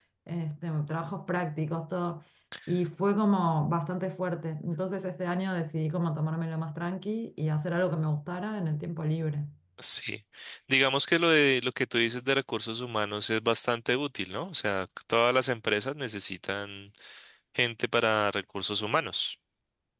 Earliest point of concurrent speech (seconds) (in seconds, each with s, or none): none